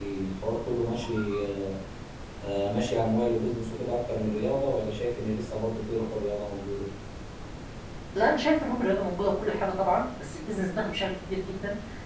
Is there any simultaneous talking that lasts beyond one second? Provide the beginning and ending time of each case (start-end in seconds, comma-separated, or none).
none